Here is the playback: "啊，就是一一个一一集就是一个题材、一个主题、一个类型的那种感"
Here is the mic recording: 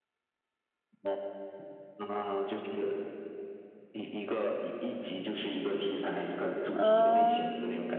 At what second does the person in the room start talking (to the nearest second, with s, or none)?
7 s